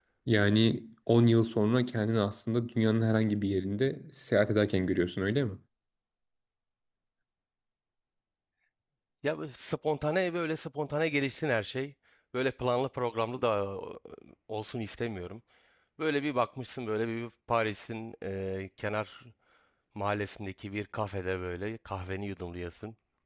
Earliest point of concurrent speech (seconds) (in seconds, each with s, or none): none